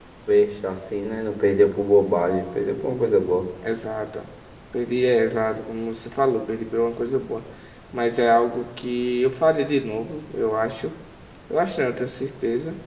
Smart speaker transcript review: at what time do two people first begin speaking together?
none

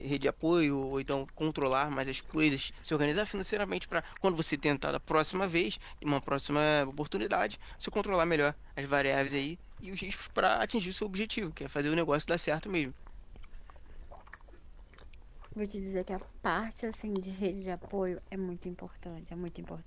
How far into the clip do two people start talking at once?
none

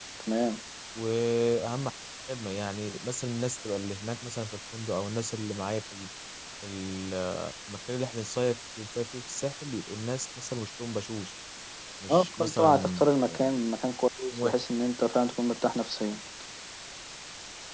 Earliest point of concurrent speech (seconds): 12.1 s

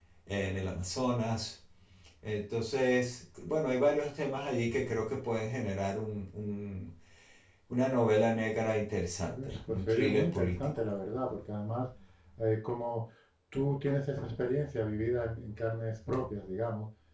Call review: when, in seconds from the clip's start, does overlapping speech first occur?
9.3 s

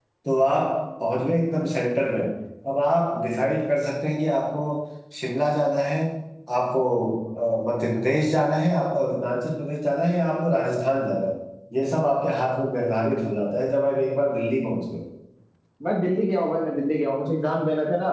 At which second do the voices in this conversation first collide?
none

